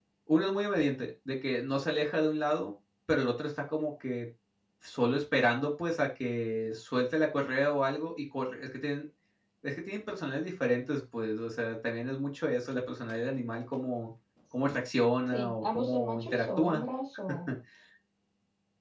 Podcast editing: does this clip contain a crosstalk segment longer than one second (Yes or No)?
Yes